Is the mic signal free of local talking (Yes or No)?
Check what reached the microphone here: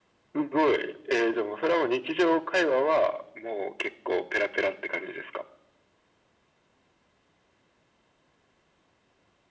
Yes